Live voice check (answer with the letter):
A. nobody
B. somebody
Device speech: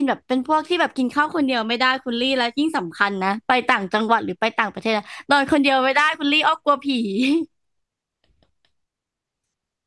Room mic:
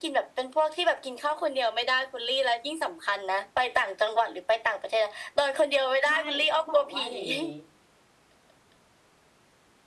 B